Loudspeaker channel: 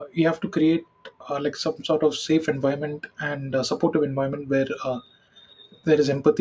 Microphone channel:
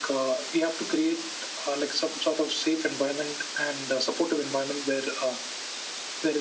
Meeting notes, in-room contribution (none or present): none